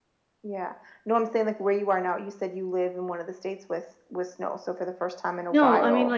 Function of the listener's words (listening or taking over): taking over